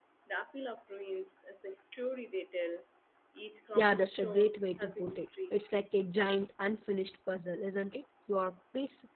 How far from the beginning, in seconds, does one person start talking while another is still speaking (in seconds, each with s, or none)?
3.8 s